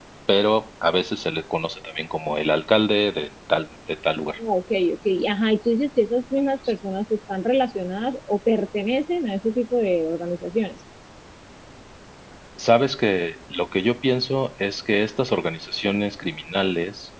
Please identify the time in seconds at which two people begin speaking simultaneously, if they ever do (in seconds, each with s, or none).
none